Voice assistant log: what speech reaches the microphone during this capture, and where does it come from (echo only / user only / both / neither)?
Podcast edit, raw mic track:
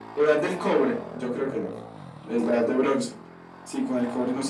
echo only